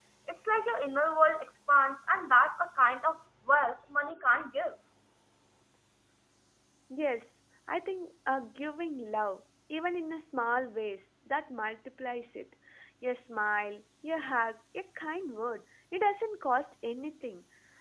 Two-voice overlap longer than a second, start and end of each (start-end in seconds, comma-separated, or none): none